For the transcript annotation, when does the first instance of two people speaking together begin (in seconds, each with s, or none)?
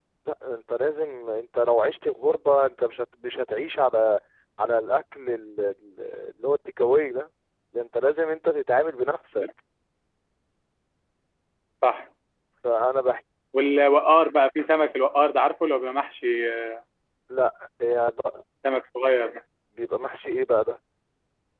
none